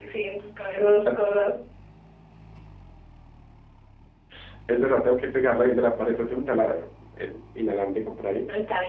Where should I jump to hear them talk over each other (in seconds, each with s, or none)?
none